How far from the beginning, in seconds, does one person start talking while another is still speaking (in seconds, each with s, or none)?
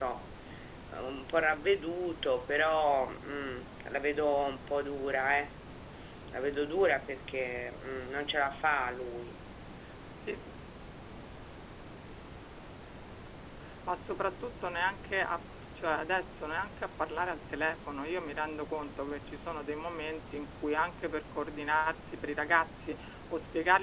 none